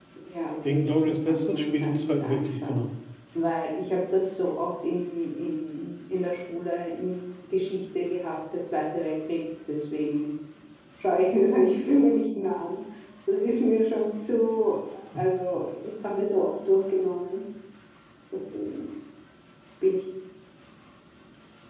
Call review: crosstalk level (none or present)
present